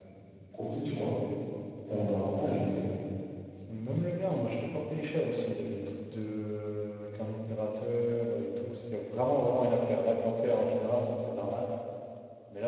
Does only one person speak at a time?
Yes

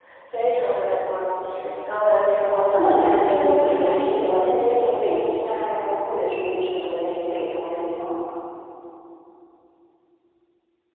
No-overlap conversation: No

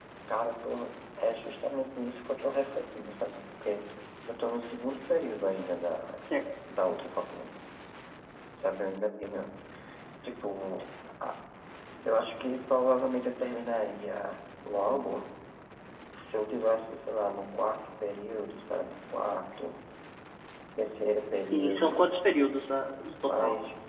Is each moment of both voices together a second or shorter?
Yes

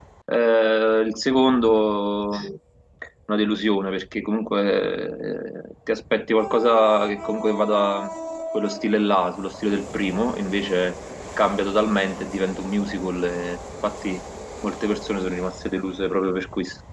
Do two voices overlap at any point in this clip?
No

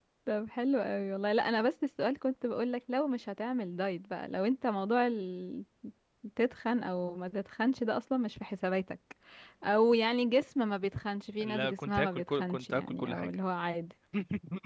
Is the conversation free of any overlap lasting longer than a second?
No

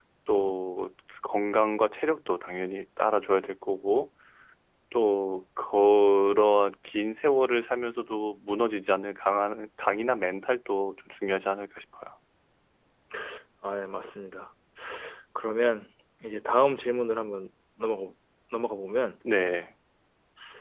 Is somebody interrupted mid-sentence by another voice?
No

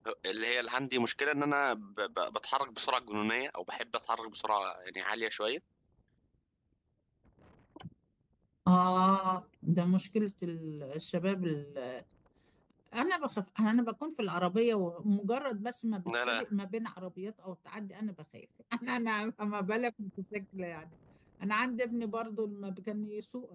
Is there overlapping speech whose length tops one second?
No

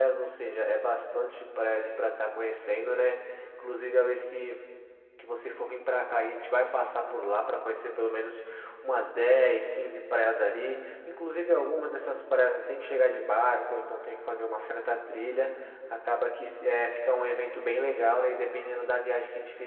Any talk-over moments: No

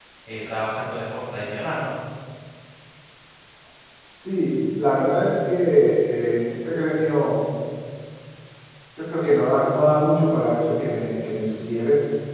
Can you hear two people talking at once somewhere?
No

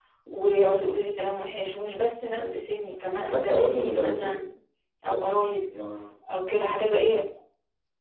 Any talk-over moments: Yes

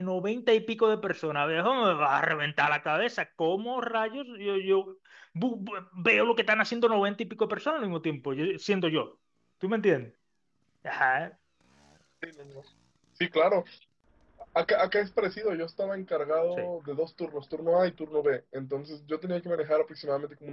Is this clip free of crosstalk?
Yes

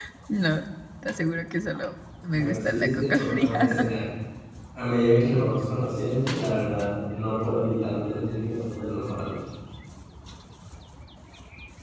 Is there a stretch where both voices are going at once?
Yes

